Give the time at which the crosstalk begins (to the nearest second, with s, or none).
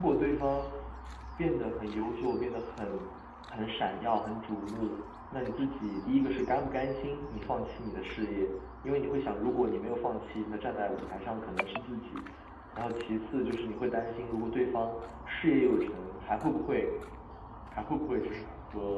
none